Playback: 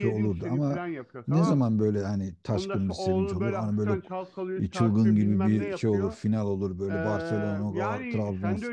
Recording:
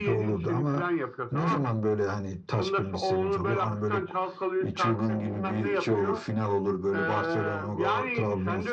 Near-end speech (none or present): none